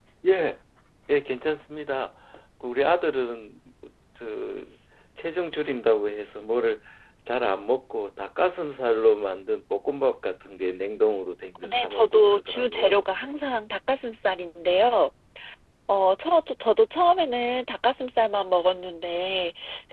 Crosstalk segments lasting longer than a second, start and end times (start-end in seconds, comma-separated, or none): 11.7-13.0